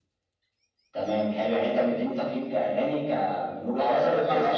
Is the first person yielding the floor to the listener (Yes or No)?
Yes